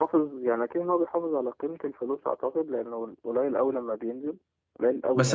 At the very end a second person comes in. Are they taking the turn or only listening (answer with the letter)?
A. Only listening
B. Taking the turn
B